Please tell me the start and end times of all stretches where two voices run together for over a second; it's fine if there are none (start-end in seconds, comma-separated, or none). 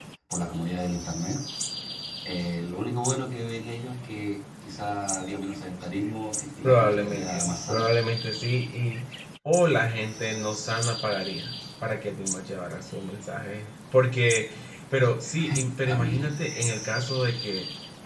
6.6-7.8